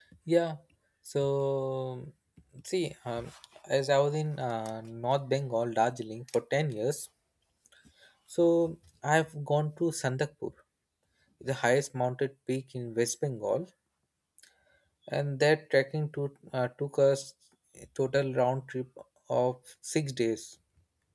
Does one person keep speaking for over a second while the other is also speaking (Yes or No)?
No